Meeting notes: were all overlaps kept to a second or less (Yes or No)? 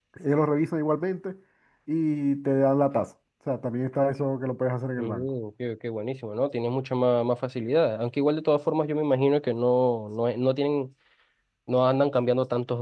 Yes